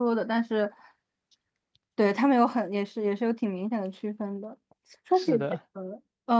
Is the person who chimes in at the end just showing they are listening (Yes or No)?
Yes